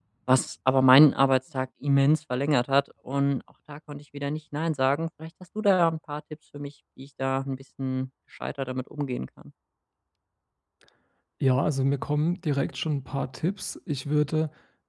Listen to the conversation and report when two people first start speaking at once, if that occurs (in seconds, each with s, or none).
none